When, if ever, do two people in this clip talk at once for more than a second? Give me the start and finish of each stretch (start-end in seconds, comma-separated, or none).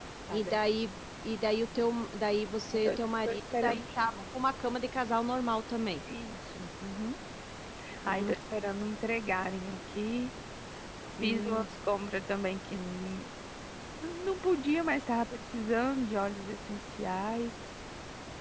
2.7-4.2